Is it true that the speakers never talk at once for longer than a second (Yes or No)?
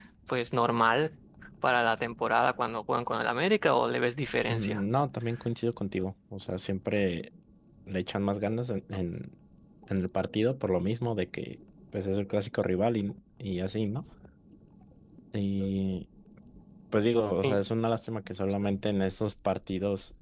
Yes